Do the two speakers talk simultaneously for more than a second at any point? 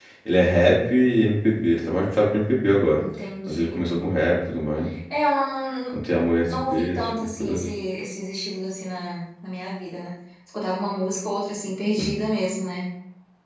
Yes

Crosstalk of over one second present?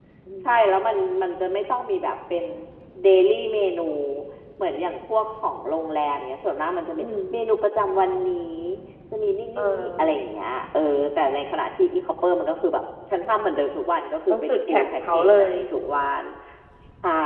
Yes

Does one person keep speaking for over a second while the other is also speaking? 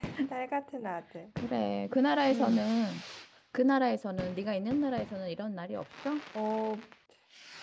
No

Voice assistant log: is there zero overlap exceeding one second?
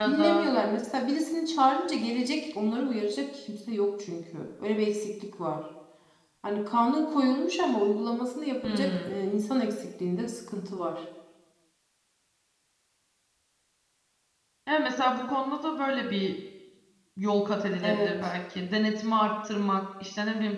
Yes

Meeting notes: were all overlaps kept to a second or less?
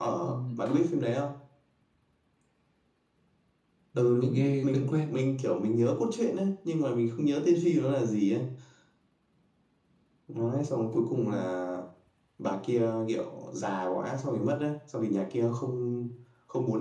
No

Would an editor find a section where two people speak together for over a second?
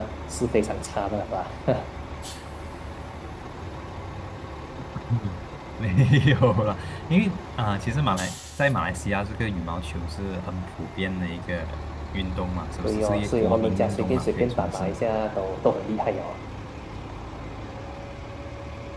Yes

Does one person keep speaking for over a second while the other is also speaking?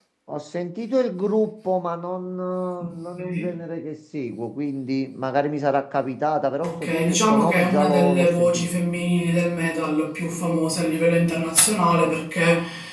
Yes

